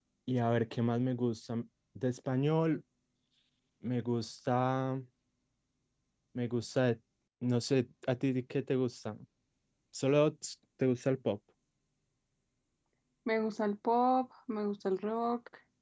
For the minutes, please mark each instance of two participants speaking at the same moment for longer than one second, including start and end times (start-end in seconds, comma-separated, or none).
none